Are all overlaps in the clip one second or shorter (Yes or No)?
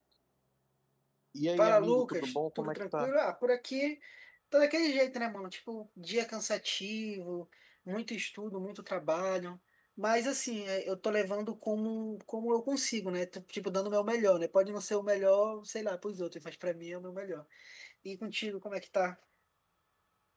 No